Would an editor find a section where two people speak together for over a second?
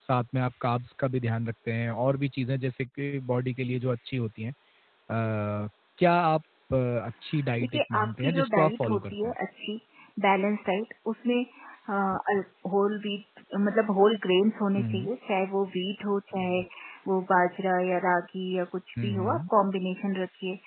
Yes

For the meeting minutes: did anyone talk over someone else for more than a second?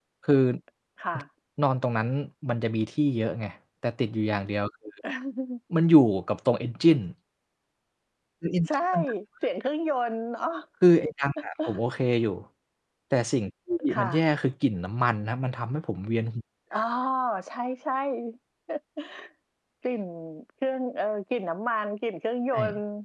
No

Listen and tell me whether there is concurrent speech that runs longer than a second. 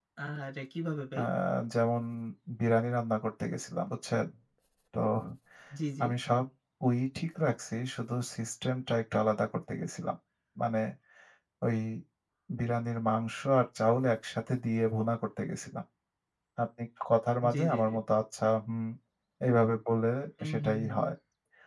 No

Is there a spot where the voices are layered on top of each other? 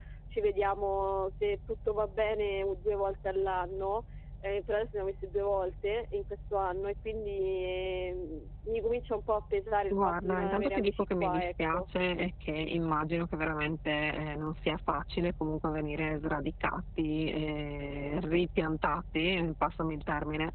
Yes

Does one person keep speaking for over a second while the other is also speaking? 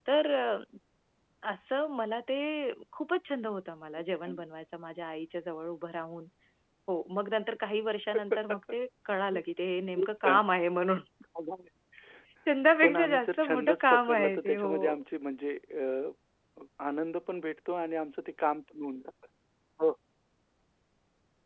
Yes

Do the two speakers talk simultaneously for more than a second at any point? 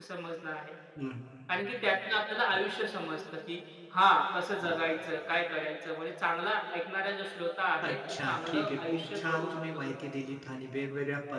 Yes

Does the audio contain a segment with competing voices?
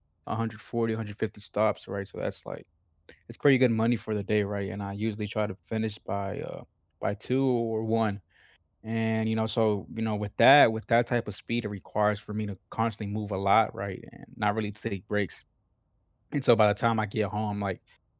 No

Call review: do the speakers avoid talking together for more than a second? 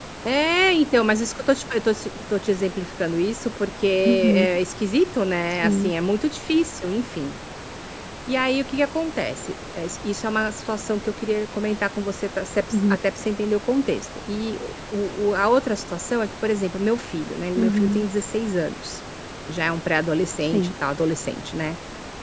Yes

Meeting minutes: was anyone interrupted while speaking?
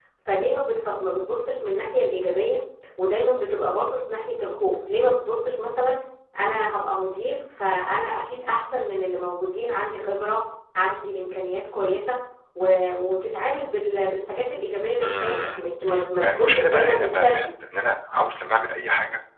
Yes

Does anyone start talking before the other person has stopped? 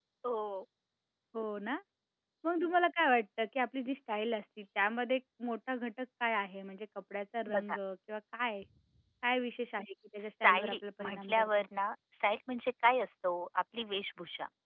Yes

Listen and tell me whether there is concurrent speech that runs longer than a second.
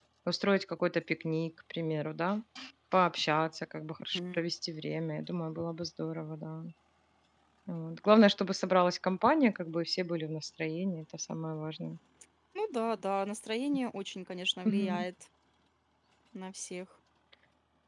No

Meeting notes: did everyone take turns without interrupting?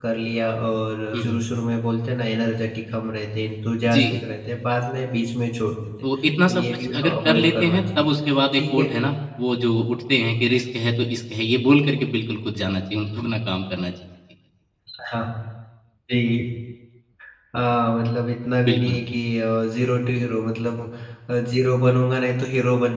No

